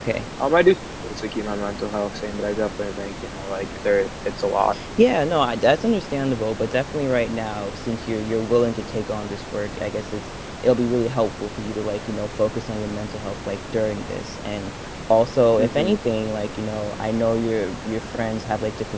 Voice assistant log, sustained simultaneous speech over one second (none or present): none